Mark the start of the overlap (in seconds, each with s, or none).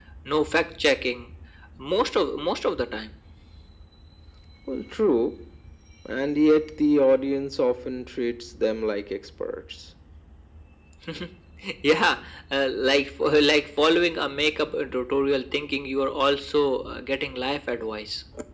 none